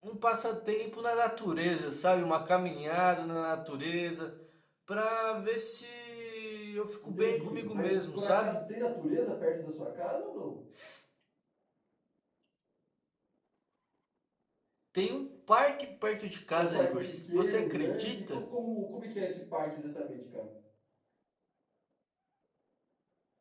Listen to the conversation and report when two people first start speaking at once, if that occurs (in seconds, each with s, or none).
7.0 s